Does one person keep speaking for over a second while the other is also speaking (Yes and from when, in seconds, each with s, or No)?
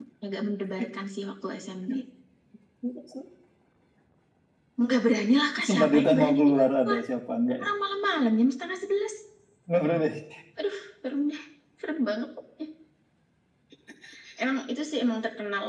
Yes, from 5.7 s